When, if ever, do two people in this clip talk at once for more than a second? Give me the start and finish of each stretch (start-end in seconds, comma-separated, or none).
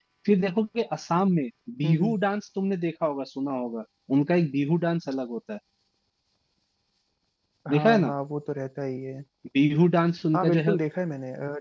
none